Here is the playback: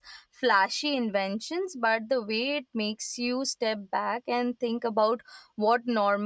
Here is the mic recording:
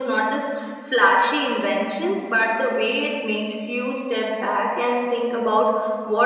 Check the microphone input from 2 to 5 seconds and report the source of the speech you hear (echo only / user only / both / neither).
echo only